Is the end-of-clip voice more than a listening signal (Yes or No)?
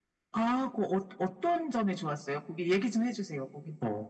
Yes